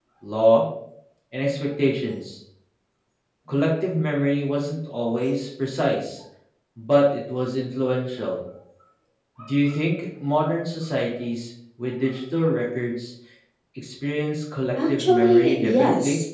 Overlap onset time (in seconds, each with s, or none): 14.8 s